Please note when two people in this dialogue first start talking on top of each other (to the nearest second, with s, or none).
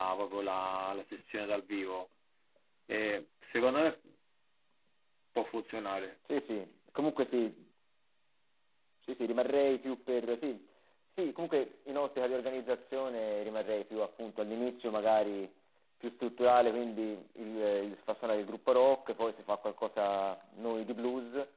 none